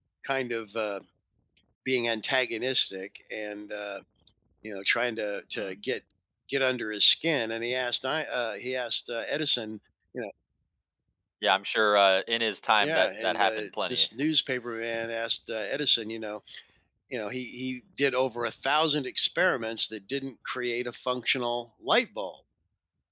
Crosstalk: present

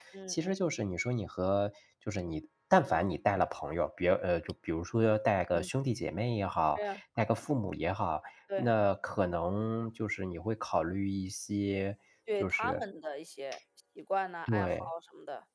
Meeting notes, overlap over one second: none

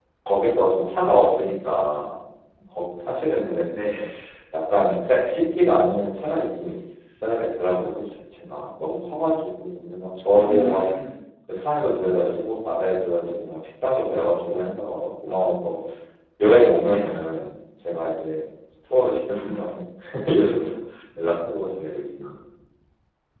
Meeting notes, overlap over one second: none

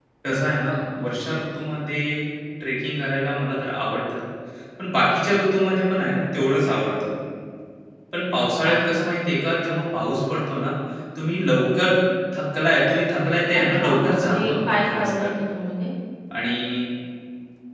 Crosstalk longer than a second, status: present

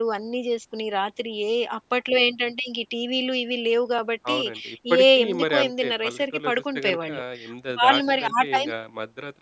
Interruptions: present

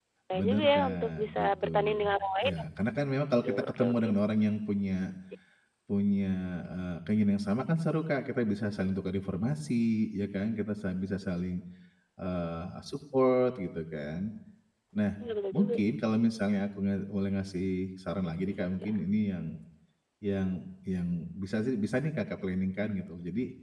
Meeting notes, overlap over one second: present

